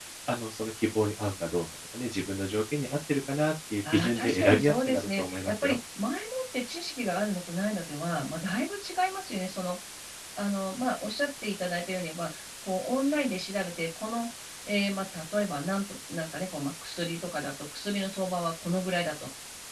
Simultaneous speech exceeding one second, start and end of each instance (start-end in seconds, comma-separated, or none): 3.9-5.8